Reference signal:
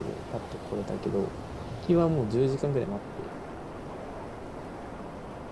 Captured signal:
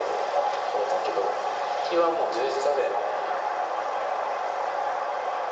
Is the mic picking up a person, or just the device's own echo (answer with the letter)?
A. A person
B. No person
B